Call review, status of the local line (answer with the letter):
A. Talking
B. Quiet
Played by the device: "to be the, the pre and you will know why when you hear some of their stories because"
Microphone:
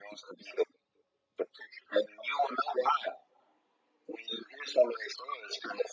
B